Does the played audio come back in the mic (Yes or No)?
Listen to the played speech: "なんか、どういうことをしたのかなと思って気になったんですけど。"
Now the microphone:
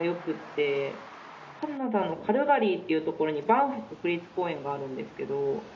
No